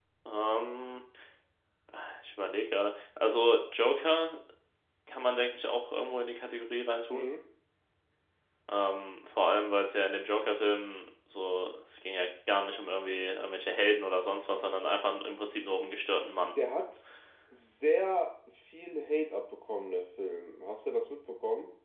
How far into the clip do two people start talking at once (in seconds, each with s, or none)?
none